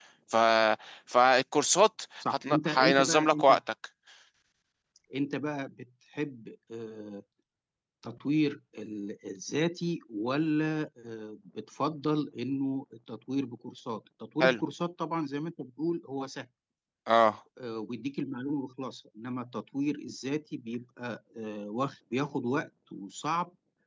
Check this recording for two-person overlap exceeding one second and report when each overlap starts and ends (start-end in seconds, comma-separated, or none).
2.3-3.6